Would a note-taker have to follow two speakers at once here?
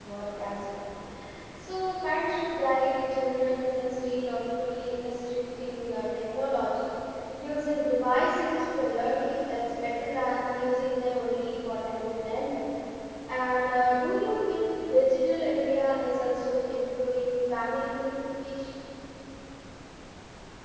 No

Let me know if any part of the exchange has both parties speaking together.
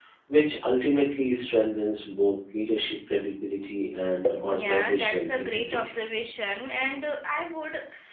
Yes, from 4.5 s

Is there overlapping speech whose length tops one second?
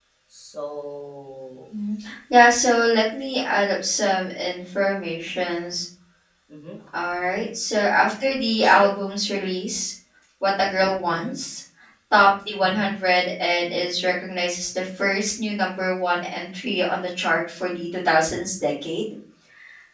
No

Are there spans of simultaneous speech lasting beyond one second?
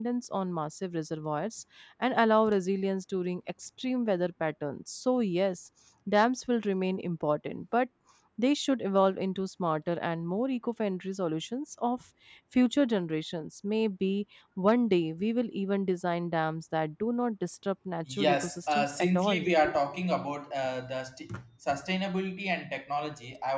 Yes, from 18.1 s

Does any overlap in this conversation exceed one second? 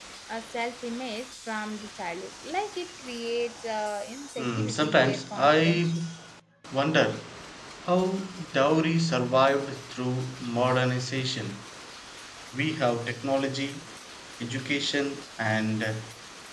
Yes, from 4.4 s

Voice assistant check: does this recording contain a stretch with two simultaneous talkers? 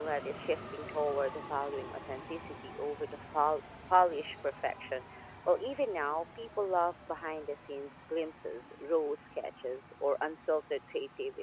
No

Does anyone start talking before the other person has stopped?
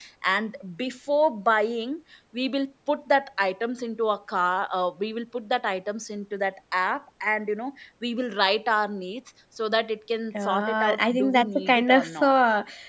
Yes, from 10.3 s

